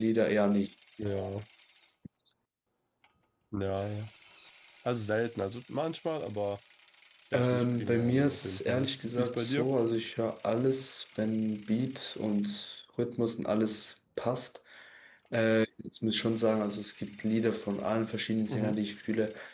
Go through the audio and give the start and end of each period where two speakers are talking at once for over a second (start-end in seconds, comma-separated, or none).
7.3-9.7